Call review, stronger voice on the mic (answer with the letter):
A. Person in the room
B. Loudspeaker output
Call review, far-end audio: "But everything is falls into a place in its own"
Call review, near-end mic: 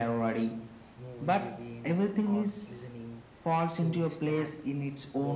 B